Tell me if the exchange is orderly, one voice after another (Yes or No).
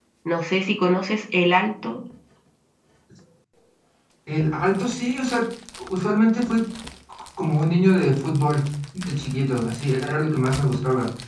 Yes